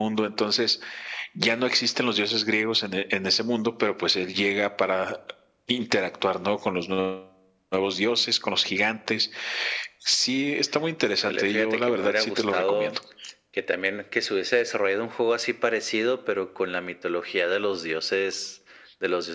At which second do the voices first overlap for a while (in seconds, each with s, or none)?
11.2 s